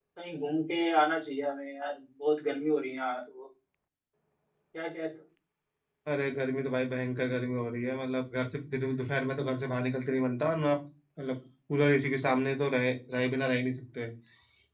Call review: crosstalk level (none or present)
none